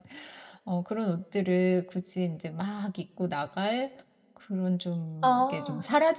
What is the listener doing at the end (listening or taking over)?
listening